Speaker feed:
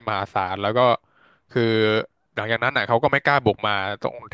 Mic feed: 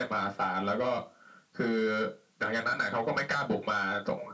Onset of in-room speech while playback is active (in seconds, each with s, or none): none